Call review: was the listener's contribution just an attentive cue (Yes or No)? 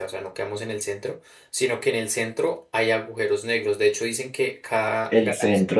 No